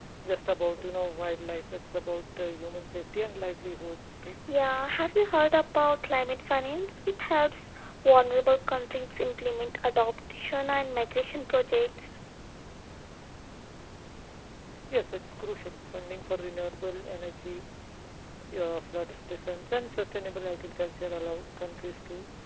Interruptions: none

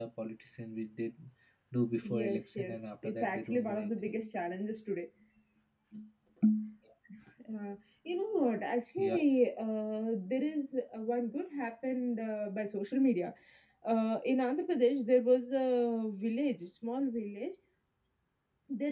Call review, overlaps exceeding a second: present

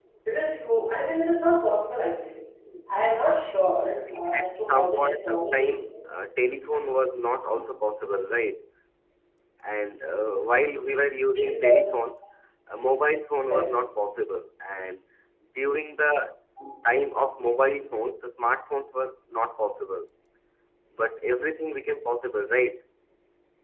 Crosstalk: present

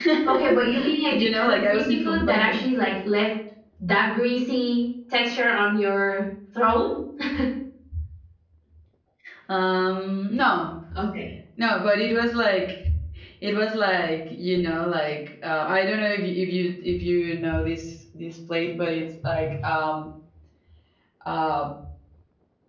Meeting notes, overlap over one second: present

